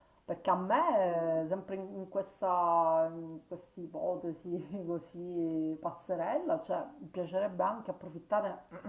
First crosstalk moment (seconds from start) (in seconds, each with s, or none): none